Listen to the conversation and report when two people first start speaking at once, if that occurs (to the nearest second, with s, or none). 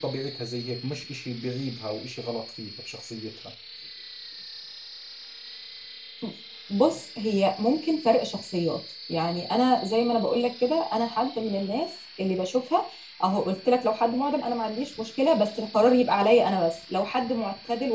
none